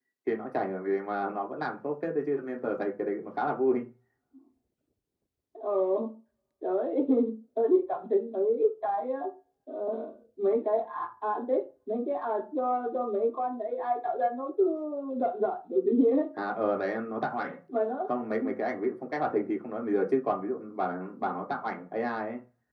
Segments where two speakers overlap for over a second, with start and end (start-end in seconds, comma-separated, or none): none